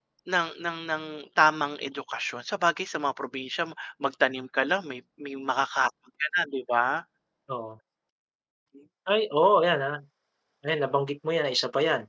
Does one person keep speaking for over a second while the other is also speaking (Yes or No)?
No